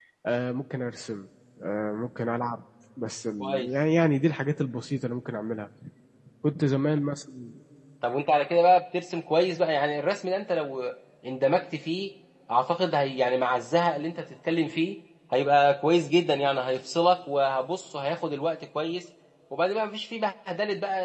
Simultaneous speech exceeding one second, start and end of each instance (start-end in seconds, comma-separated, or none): none